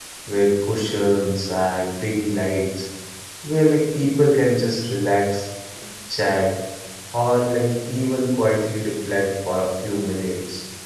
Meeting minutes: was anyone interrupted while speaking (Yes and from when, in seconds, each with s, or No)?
No